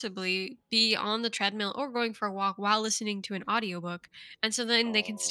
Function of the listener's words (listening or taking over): listening